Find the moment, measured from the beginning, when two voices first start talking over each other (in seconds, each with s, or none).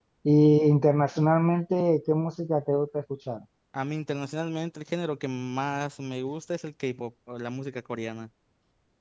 none